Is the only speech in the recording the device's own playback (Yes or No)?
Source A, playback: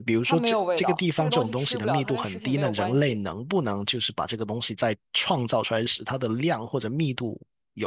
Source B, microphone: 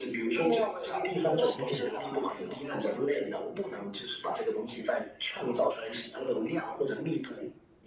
No